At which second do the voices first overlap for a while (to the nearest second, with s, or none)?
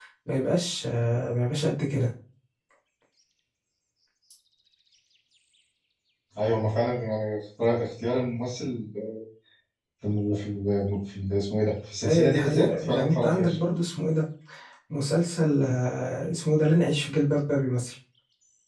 12 s